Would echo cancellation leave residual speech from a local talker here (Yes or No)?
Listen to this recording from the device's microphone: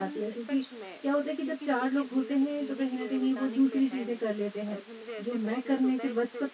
Yes